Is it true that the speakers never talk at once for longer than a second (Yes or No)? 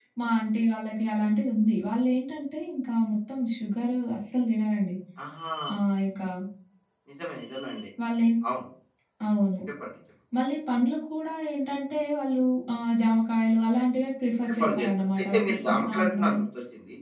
No